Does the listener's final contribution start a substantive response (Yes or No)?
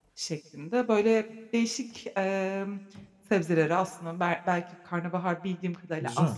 No